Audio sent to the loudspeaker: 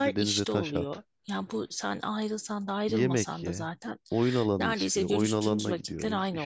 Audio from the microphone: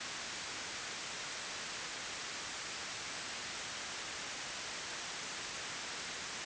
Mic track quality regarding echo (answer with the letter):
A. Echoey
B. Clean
B